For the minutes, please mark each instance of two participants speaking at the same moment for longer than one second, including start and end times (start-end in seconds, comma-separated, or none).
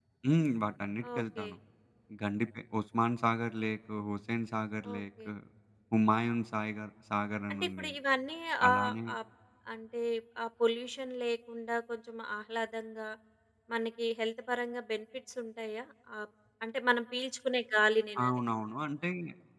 none